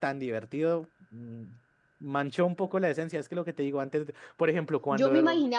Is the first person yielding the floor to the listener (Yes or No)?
Yes